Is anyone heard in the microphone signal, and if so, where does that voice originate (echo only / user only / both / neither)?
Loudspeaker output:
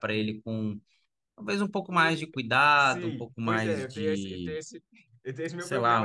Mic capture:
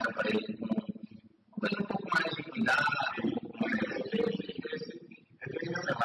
echo only